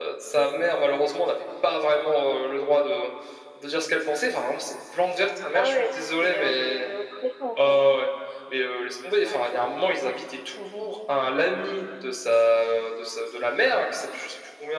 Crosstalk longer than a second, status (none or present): present